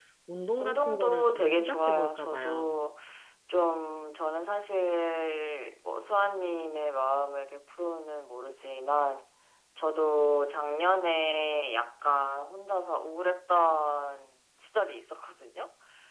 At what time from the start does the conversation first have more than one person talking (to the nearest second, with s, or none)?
1 s